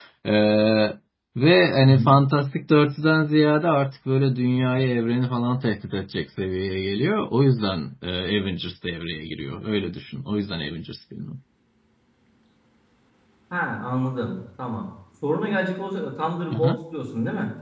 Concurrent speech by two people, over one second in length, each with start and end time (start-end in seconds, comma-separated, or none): none